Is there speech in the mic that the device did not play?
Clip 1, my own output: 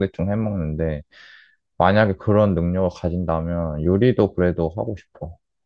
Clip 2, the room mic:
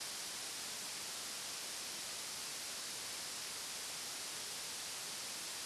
No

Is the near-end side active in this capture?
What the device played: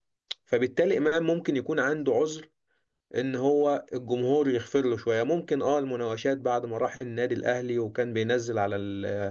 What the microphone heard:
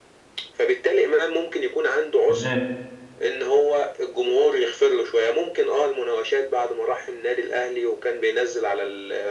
Yes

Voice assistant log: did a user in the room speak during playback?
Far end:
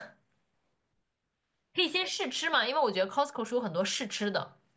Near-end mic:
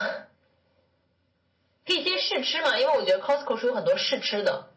No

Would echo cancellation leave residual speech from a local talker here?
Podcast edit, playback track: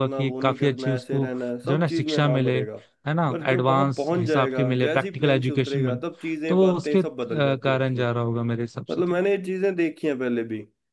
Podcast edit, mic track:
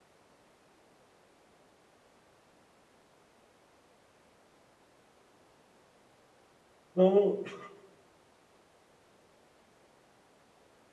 Yes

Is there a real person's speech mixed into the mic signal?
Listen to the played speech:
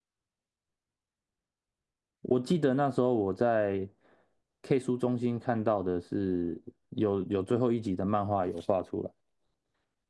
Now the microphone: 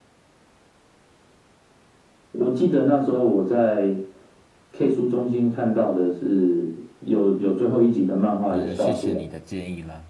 Yes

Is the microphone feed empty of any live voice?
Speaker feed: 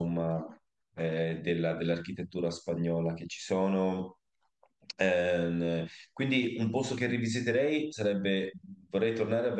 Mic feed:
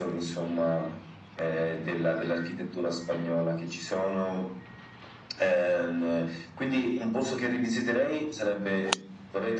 Yes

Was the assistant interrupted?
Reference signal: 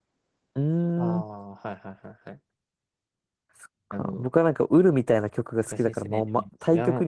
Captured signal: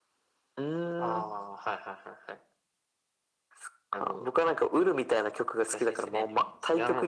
No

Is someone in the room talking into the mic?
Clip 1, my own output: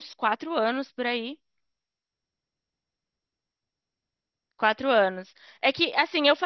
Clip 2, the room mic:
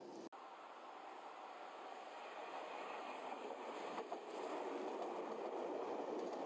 No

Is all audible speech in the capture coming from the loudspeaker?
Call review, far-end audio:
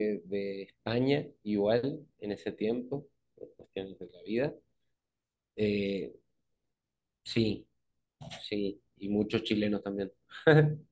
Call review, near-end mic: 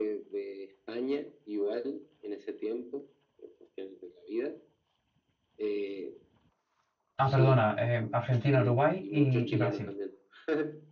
No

